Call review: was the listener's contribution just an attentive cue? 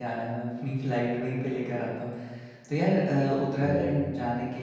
Yes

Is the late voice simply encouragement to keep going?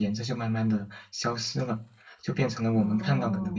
Yes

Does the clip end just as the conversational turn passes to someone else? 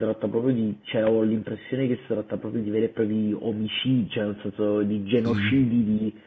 No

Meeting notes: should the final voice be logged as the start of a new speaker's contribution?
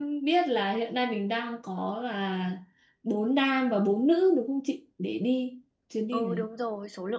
Yes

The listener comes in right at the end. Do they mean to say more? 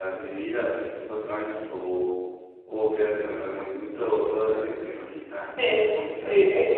Yes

